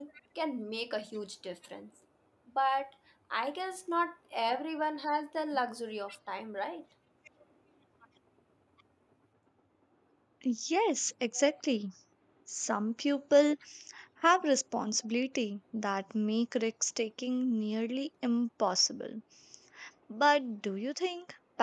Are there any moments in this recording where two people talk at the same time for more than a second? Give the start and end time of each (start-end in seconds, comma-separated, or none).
none